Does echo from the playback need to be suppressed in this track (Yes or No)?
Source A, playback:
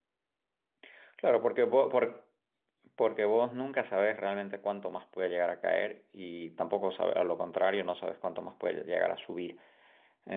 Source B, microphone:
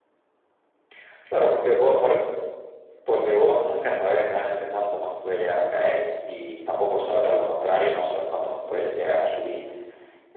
Yes